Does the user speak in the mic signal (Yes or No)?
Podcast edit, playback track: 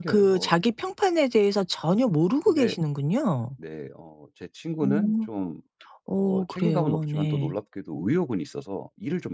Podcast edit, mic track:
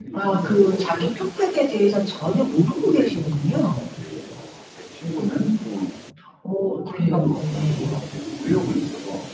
No